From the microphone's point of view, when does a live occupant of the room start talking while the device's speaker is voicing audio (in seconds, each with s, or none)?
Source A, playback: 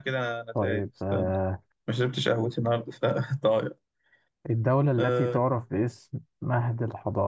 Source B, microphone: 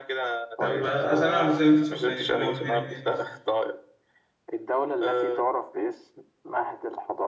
0.6 s